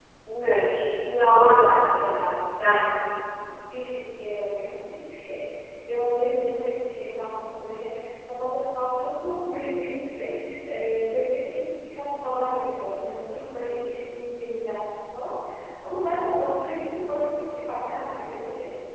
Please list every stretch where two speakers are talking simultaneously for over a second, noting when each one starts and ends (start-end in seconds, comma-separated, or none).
none